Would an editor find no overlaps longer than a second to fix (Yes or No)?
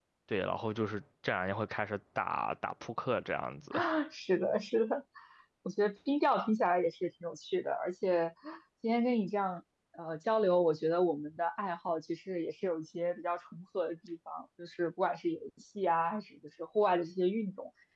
Yes